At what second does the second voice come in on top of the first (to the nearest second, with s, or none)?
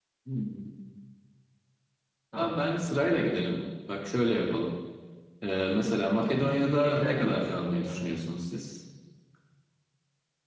6 s